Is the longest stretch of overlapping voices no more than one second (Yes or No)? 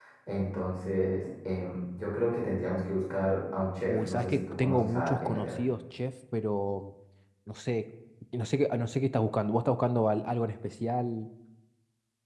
No